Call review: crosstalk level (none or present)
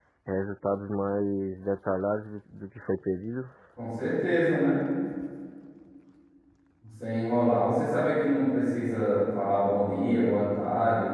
none